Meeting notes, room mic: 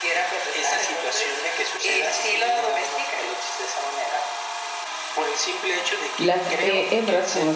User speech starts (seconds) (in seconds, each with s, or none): 6.2 s